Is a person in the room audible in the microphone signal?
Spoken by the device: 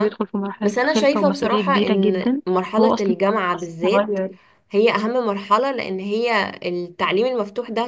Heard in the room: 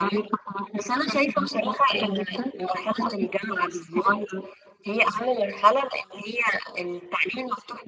No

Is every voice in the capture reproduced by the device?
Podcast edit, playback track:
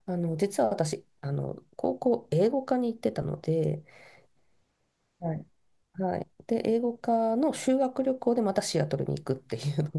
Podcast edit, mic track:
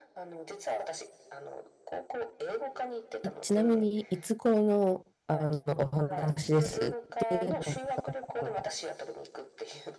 No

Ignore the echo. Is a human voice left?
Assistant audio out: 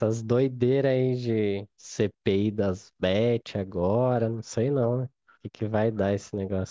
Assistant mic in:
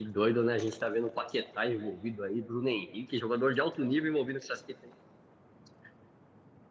Yes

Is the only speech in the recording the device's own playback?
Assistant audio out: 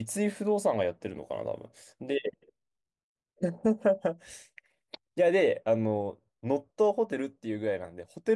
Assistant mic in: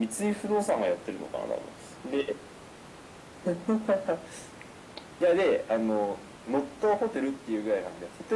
Yes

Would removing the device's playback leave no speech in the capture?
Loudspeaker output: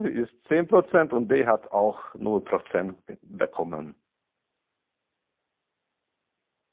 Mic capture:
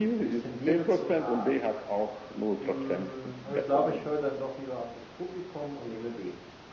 No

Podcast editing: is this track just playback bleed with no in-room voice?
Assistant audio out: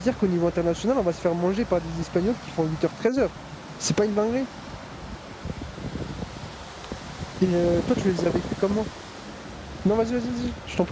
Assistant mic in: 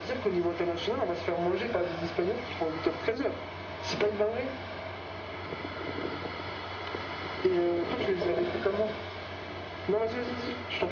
Yes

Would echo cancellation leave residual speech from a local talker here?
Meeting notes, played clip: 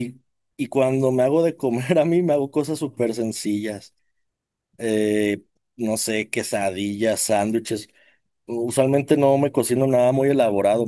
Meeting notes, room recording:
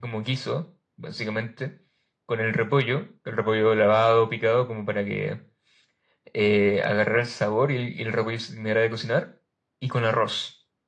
Yes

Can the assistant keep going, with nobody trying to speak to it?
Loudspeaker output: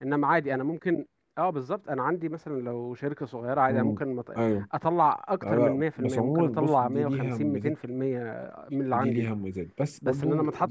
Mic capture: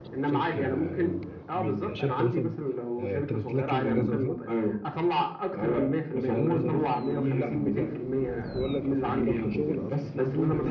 No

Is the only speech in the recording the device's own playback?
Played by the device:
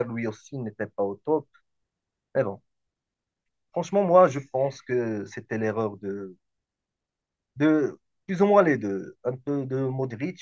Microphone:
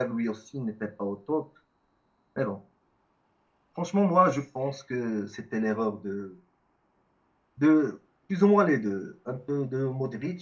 Yes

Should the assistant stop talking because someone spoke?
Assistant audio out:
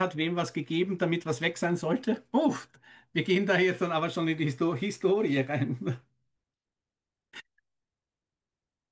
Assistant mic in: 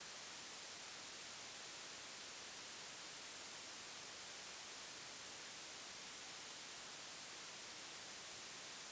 No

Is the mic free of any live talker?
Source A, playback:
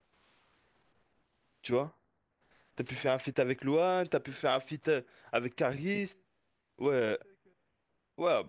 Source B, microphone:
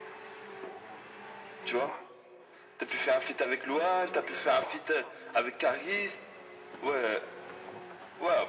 Yes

